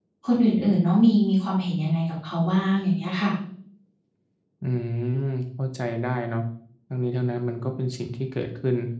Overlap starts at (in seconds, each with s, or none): none